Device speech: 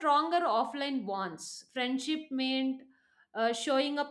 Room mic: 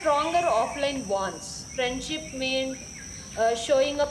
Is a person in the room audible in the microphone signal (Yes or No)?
No